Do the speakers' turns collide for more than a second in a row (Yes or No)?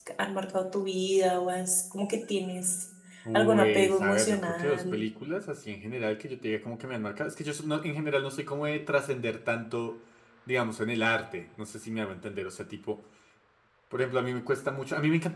Yes